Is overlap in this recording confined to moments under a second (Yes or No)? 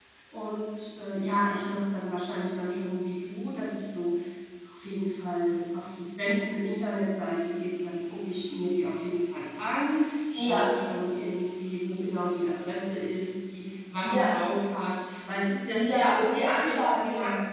No